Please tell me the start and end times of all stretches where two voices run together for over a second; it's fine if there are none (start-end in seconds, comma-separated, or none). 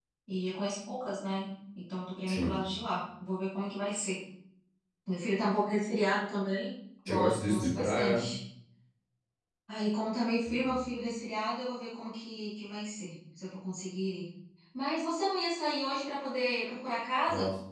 7.1-8.3